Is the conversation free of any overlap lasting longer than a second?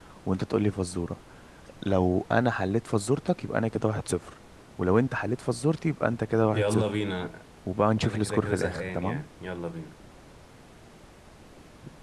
No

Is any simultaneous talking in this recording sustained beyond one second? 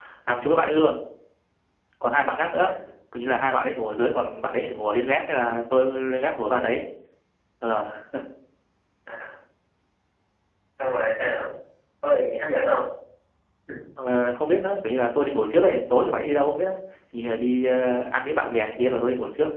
No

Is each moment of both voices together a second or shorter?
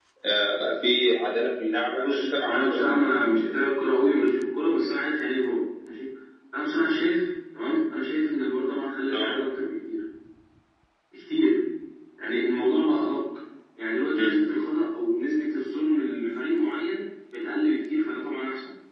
No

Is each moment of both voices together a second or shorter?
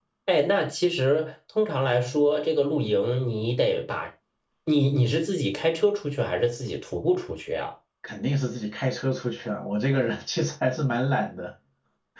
Yes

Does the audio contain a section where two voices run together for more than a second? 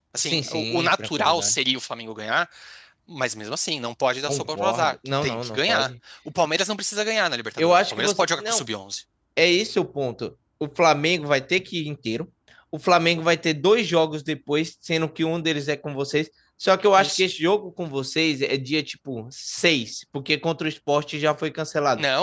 Yes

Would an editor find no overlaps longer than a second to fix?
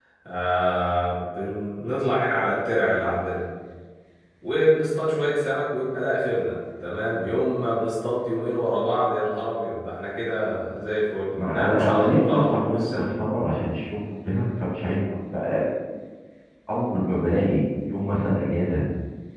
No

